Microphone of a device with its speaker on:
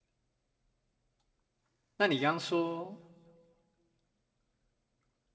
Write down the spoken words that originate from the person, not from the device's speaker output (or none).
那你刚刚说，